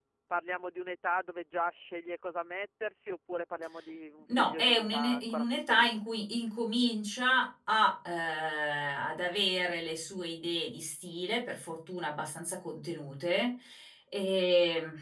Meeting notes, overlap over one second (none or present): present